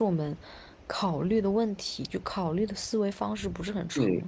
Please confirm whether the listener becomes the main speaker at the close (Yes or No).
Yes